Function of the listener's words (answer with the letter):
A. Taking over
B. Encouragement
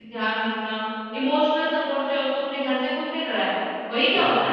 B